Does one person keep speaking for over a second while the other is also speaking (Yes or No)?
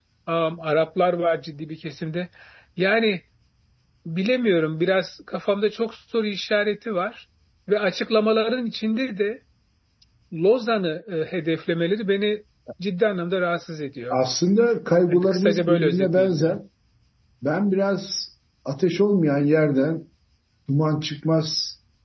Yes